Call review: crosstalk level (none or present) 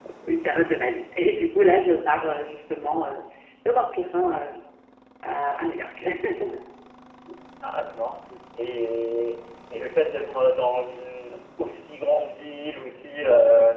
none